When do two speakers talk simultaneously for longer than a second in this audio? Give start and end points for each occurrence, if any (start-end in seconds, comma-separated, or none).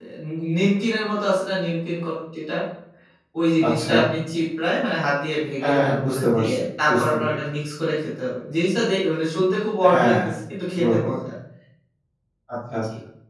5.6-7.2